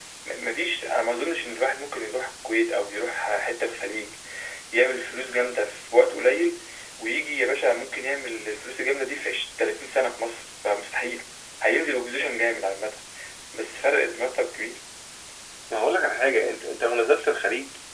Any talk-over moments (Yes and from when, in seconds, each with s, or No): No